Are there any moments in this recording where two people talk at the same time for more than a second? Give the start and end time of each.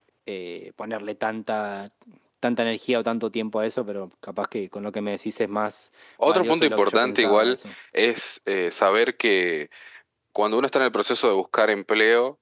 6.3-7.6

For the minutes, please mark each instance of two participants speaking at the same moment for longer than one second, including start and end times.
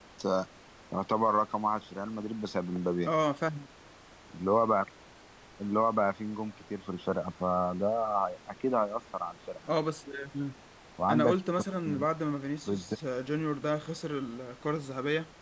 none

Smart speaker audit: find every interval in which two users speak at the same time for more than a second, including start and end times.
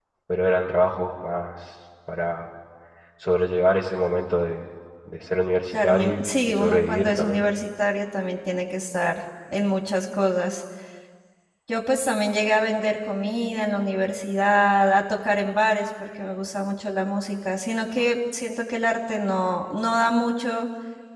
5.7-7.4

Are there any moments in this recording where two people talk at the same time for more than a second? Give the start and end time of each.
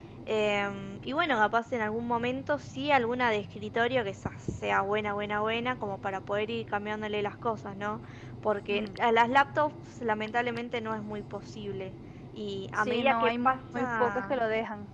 12.8-14.4

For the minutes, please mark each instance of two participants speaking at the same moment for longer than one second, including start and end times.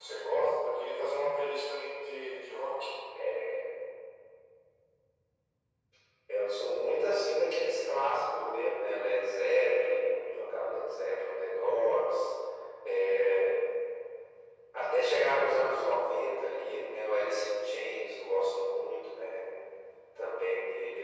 none

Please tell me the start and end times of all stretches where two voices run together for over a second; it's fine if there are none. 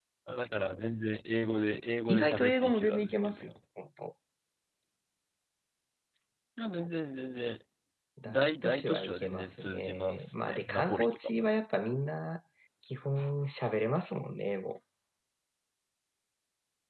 2.1-3.5, 8.2-11.5

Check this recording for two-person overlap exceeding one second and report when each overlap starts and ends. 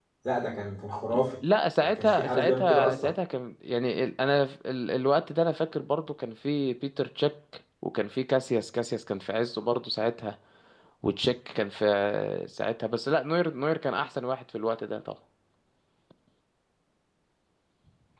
1.8-3.1

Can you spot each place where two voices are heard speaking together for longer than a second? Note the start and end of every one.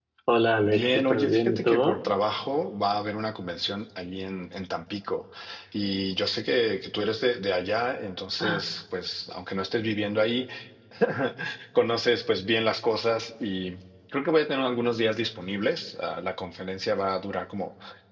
0.6-2.0

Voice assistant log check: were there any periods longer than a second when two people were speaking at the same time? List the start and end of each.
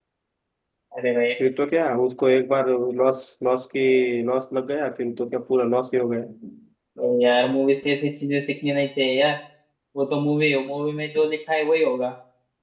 none

